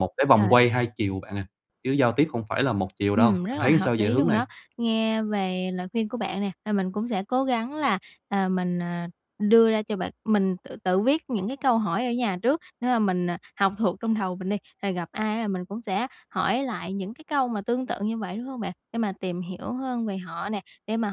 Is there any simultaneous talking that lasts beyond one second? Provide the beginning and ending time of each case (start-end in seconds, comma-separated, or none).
3.1-4.4